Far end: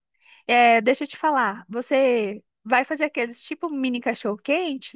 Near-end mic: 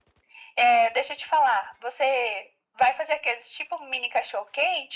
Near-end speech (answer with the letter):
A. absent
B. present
A